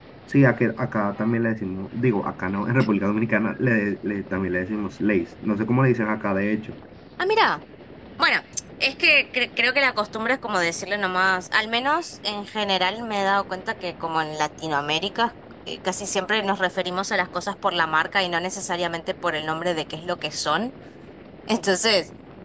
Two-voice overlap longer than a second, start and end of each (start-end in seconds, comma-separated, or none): none